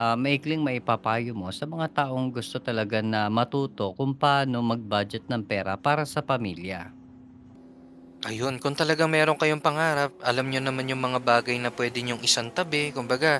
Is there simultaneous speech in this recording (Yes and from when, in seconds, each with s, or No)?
No